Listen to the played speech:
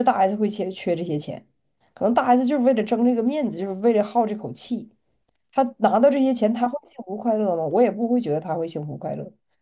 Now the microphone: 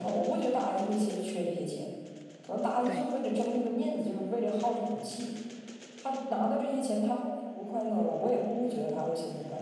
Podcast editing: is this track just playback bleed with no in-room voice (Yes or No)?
No